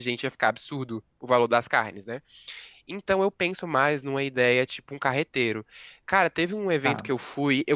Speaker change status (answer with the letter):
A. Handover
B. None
B